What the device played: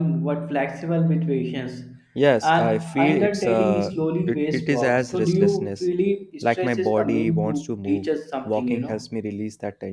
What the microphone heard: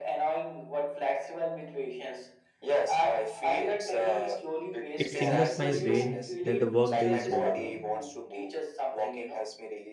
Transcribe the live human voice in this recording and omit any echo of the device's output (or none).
it signals my brain that the workday is over.